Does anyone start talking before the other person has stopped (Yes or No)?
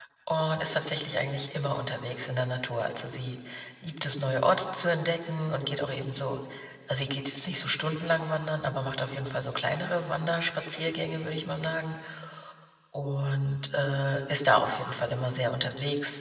No